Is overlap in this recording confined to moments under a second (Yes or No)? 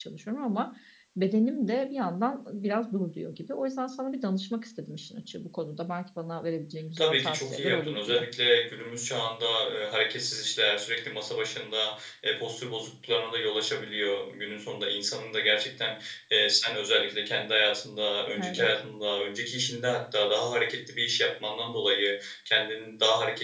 No